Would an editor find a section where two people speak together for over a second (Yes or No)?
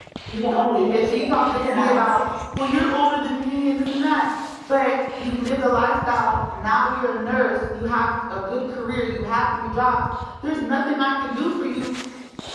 Yes